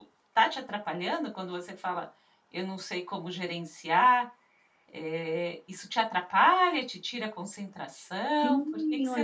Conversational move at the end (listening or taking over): taking over